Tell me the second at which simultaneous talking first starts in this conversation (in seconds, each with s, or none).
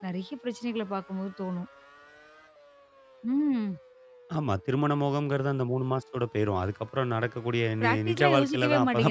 7.8 s